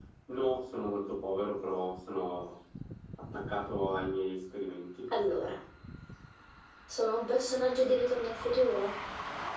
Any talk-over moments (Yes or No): No